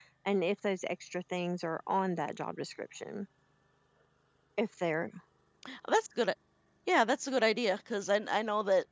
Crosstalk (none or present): none